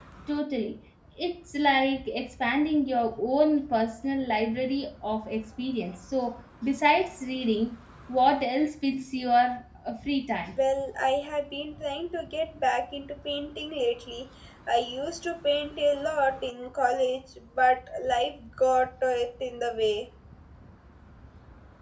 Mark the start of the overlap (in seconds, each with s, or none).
none